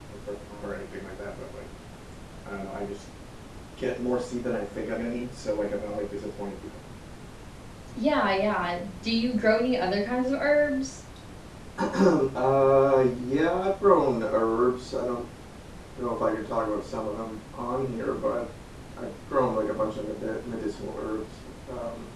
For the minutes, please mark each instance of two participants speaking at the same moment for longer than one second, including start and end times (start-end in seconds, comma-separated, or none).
none